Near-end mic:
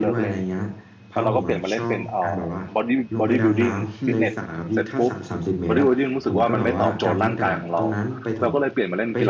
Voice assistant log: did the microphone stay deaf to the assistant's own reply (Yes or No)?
No